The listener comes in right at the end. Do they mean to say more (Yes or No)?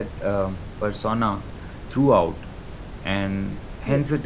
No